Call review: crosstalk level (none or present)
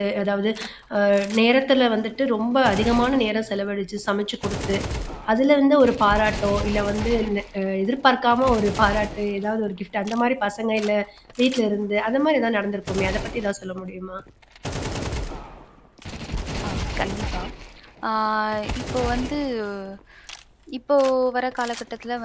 none